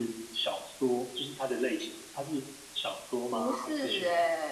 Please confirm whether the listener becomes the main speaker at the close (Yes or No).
Yes